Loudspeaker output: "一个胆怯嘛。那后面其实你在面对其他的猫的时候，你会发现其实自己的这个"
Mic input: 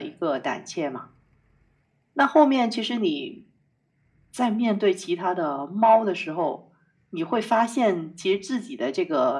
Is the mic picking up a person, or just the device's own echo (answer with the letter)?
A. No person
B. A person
A